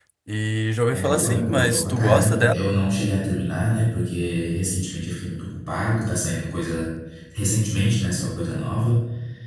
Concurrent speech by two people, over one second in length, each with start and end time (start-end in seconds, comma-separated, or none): 0.9-2.6